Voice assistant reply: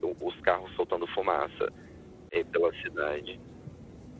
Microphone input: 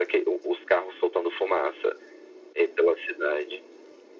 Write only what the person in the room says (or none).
none